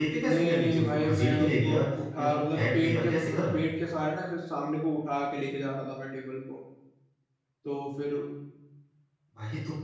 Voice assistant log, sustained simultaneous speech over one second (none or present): present